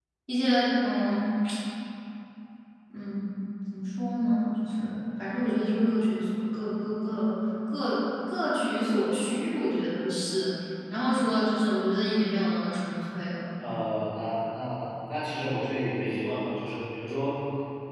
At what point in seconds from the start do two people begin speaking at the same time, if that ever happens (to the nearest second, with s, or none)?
none